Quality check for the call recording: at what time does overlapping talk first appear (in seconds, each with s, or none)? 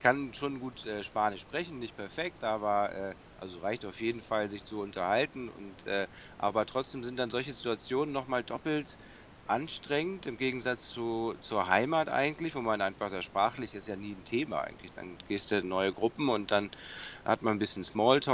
none